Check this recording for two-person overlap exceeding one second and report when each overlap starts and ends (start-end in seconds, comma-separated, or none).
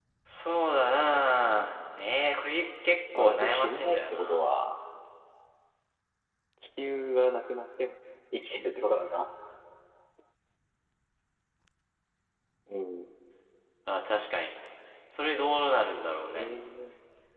3.1-4.4